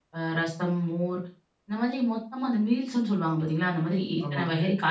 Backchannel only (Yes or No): Yes